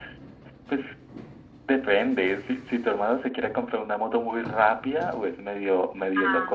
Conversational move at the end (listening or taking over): listening